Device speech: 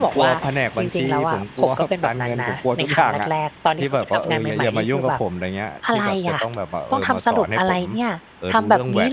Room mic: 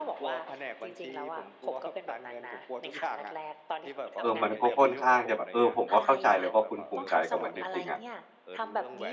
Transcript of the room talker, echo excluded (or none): เออ มันก็ค่อนข้างจะแบบ เออ ผมก็เข้าใจเลยว่าคุณภูมิใจกับมันจริง ๆ อะ